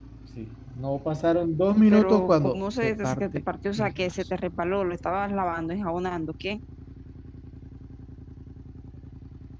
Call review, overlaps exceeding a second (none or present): present